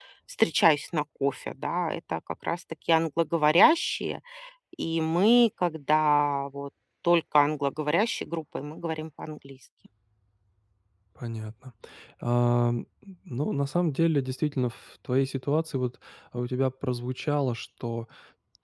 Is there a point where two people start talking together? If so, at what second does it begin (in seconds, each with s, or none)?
none